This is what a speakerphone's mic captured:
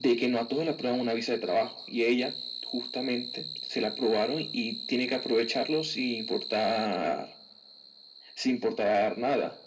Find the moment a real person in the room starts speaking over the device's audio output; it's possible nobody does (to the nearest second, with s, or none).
none